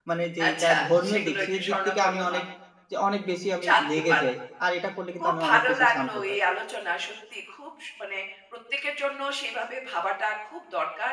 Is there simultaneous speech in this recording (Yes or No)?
Yes